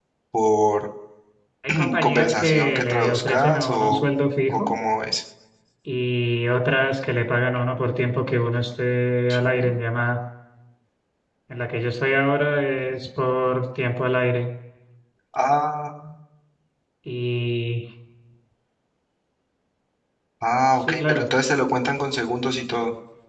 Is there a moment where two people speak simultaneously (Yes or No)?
Yes